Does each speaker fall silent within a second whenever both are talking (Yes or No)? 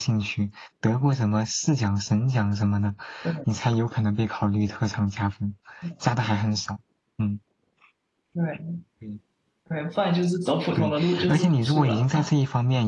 No